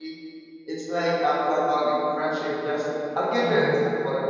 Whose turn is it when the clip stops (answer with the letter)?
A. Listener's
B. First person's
B